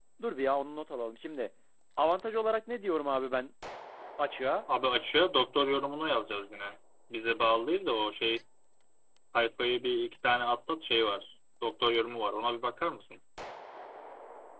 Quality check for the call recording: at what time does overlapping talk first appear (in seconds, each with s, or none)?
none